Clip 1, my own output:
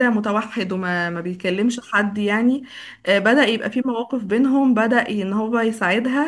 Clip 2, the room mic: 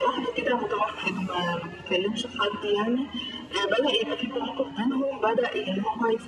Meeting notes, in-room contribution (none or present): none